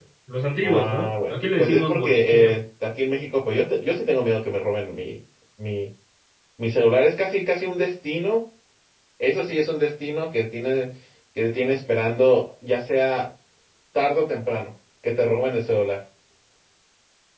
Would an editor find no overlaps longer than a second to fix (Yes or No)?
No